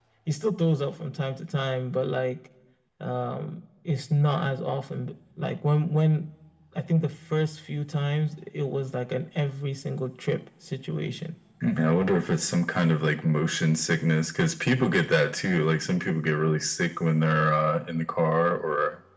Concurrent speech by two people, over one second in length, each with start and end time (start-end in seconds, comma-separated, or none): none